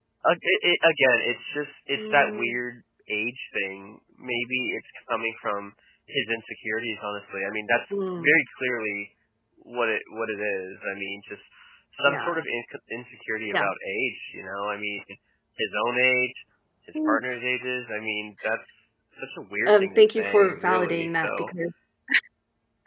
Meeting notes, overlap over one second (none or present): present